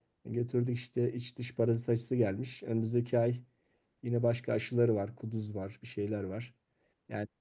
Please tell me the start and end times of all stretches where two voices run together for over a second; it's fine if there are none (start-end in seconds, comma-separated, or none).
none